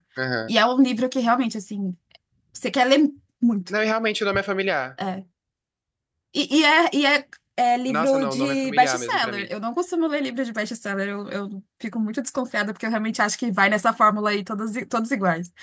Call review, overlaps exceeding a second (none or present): present